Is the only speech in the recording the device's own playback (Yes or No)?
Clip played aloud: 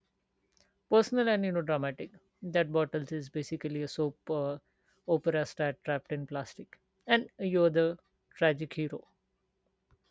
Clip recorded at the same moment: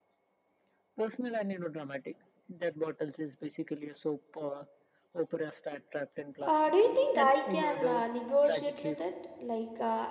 No